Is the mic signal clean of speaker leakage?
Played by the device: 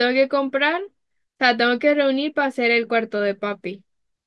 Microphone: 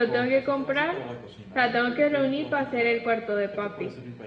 No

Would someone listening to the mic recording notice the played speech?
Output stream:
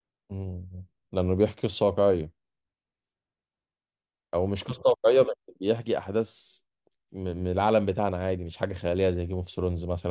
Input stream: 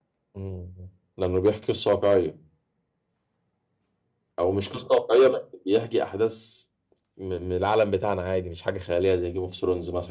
Yes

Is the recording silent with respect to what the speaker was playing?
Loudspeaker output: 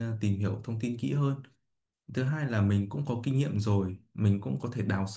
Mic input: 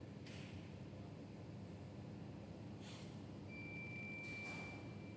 Yes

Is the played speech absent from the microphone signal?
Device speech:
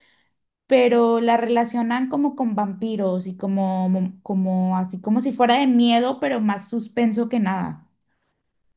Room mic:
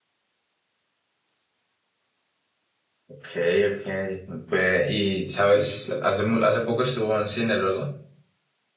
Yes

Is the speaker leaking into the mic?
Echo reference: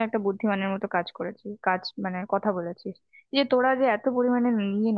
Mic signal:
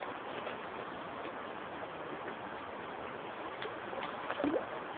No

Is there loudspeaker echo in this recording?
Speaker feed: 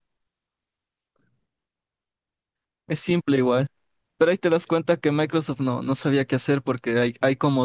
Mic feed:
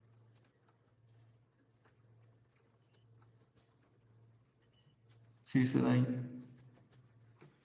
No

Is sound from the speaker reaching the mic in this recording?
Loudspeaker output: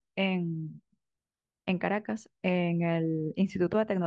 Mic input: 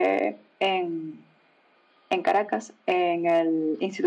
Yes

